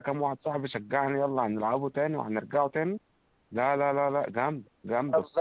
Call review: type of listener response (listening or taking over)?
taking over